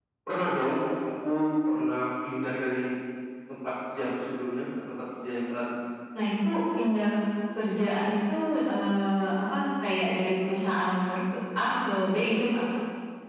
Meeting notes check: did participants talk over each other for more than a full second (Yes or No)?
No